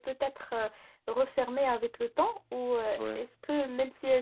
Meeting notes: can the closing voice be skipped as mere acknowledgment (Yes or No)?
Yes